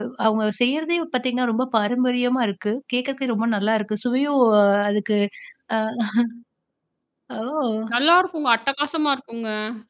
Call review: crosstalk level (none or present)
none